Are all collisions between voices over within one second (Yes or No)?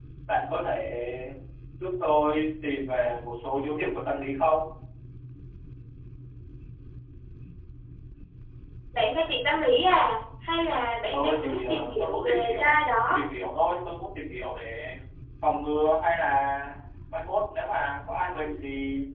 No